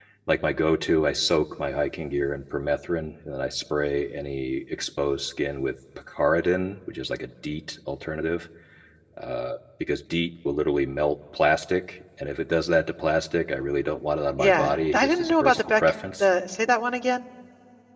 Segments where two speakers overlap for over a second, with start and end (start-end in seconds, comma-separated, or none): 14.3-16.2